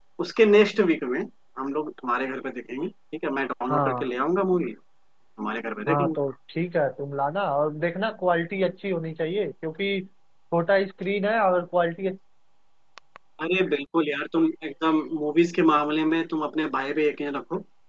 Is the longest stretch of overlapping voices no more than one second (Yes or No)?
Yes